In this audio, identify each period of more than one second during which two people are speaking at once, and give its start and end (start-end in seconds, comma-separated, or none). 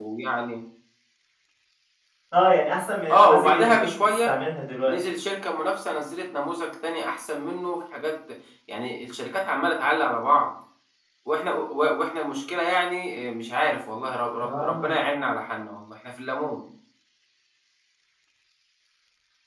3.1-4.3